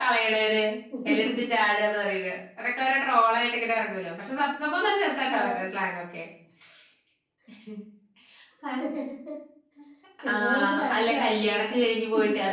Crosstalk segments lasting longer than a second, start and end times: 10.3-11.7

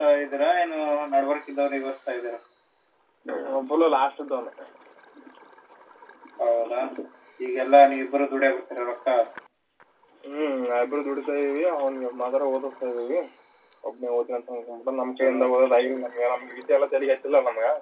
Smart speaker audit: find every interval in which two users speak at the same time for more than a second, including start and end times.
none

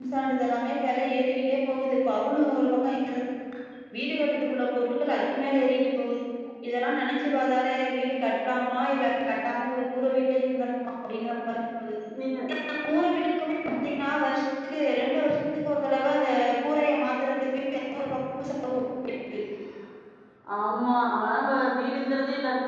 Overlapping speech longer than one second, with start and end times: none

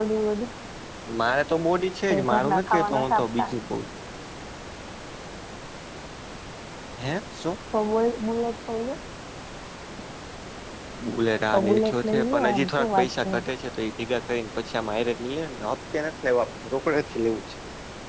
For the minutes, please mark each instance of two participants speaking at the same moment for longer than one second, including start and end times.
2.1-3.5, 11.5-13.4

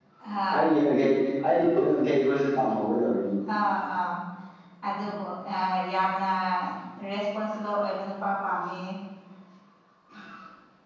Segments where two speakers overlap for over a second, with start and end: none

